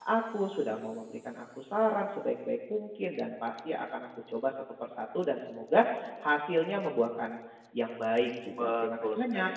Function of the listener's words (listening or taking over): taking over